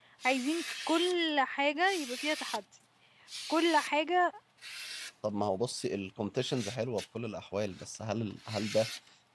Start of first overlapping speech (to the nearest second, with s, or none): none